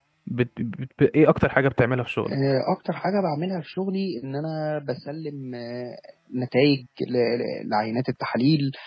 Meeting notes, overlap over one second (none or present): none